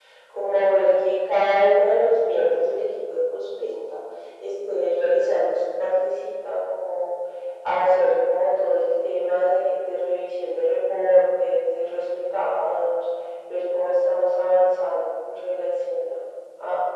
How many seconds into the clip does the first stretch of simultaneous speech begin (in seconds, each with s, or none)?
none